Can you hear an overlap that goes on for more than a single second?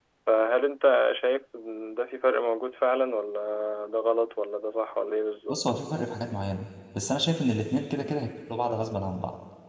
No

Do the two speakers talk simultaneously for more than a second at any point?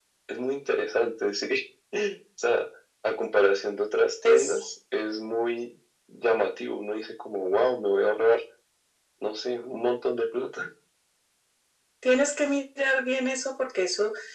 No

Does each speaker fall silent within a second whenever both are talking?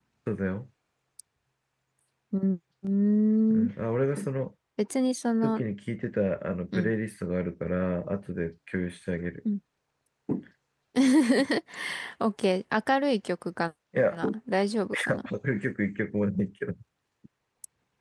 Yes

